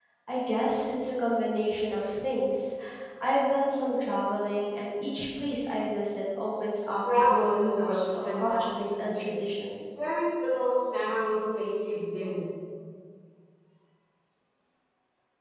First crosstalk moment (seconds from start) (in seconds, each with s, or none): 6.9 s